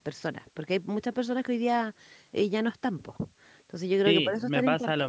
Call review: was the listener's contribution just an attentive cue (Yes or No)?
No